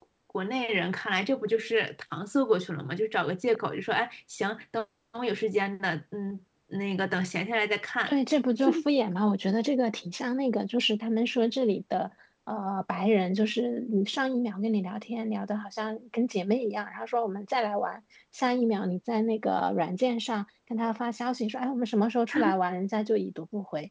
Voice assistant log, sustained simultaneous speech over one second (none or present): none